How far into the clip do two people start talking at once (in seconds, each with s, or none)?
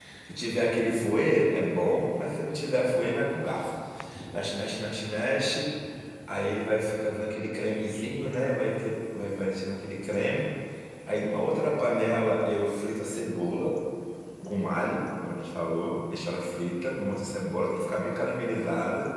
none